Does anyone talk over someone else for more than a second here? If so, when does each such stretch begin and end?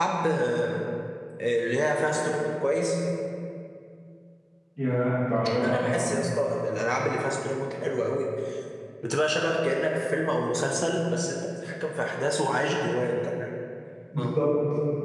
none

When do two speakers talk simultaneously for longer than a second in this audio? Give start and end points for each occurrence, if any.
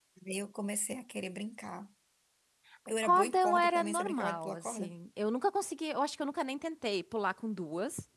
3.0-4.9

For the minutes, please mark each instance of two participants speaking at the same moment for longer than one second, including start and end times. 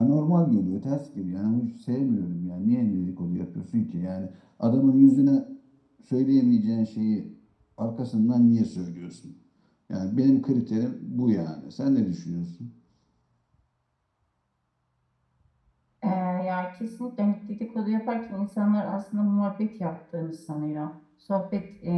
none

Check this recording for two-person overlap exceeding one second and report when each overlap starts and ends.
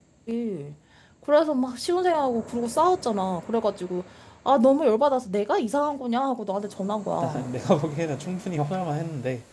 none

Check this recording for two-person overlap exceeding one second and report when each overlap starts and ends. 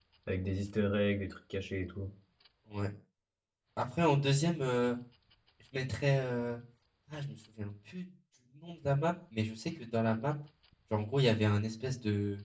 none

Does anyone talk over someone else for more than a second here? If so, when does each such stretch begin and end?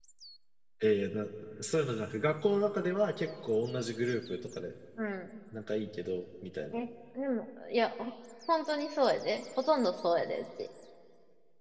none

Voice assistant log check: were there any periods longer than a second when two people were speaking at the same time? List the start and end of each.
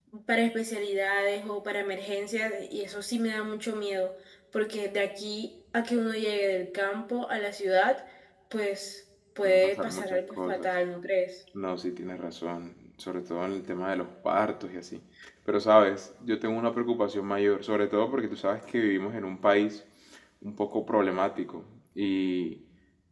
9.4-10.7

